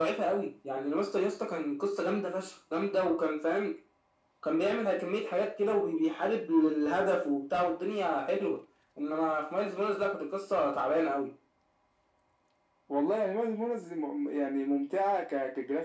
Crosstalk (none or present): none